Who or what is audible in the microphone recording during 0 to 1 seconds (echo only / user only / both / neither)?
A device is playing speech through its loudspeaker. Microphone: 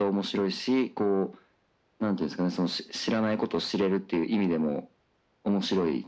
echo only